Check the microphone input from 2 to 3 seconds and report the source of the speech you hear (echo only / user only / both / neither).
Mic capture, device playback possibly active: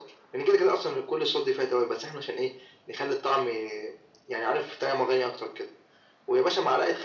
echo only